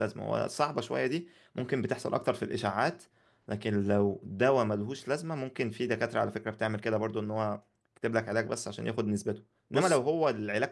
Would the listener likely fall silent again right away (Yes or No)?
Yes